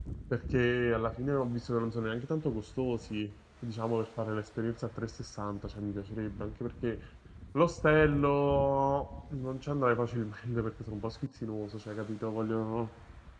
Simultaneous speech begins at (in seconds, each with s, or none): none